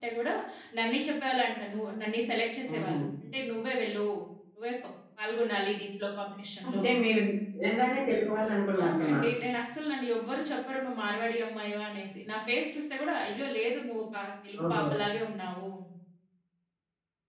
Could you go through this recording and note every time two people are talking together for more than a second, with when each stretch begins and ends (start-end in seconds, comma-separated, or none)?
none